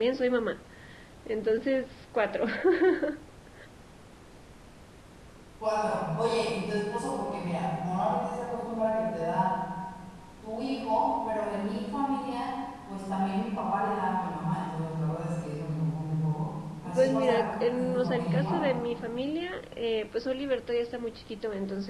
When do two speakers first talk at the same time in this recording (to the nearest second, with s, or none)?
17 s